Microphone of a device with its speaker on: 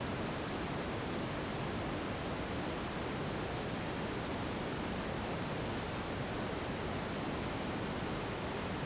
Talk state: neither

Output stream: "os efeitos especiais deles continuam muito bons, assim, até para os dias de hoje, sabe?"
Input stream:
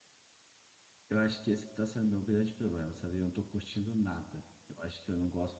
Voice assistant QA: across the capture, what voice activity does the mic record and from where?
user only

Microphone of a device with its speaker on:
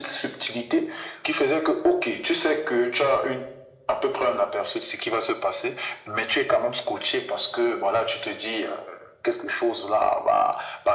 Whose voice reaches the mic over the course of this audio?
echo only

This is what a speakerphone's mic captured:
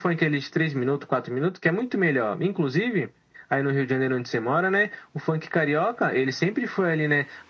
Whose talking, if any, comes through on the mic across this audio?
echo only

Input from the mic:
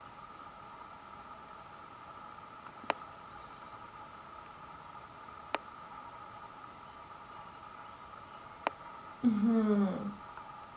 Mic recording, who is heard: user only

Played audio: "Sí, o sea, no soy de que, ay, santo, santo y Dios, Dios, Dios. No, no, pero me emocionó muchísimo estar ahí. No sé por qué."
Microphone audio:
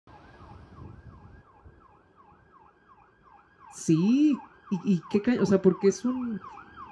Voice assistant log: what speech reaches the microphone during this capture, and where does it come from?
user only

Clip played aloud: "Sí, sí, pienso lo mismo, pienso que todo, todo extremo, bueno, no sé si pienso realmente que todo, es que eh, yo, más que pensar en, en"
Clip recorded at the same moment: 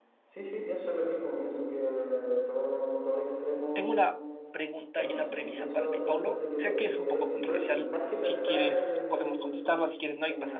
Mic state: both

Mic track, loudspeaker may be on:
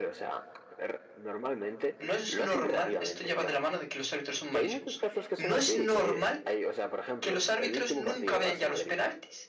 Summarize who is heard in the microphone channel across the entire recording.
both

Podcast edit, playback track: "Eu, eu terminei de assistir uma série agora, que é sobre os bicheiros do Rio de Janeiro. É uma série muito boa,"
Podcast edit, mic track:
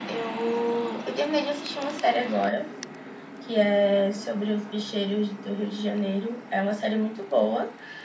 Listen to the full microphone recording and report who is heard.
echo only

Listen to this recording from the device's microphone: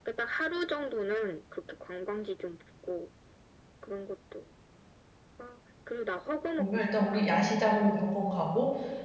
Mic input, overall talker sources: both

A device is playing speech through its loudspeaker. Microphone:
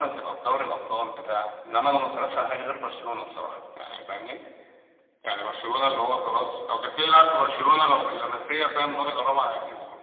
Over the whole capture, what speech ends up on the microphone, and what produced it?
echo only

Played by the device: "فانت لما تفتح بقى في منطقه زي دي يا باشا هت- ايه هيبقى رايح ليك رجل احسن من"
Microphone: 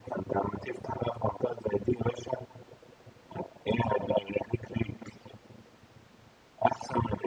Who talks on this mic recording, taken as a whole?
echo only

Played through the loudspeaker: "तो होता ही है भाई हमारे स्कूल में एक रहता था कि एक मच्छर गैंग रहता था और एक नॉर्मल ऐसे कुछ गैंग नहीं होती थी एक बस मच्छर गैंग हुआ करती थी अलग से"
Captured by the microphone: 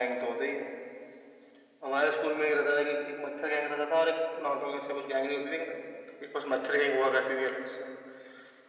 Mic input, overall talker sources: echo only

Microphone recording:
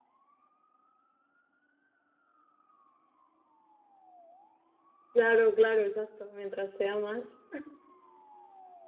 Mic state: user only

